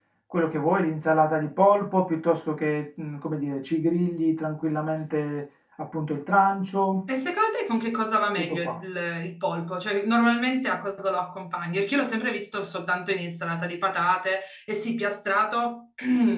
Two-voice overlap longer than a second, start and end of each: none

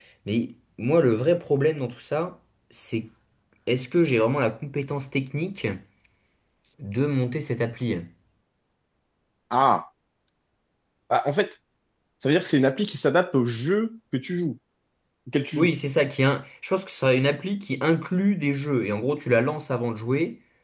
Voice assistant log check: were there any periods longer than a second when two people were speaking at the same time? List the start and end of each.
none

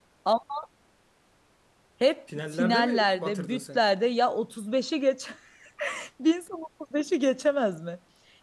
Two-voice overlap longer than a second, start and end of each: 2.5-3.8

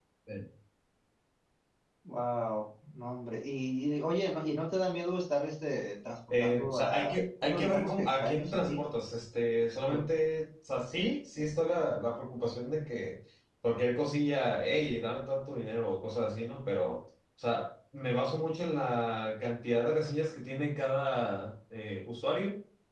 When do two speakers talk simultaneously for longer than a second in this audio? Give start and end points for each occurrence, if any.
6.4-8.8

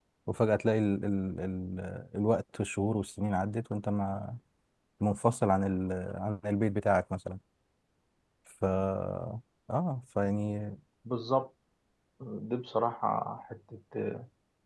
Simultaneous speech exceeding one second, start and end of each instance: none

